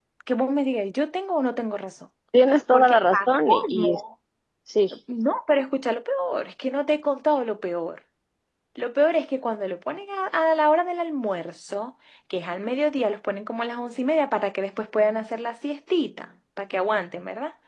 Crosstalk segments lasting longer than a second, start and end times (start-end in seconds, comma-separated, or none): 2.7-4.0